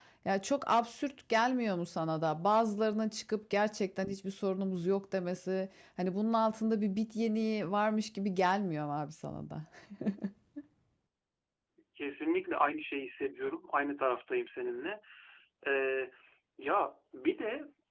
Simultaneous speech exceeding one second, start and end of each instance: none

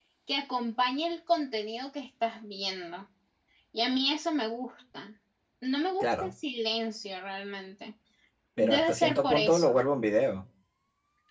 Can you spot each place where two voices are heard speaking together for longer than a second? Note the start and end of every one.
8.6-9.8

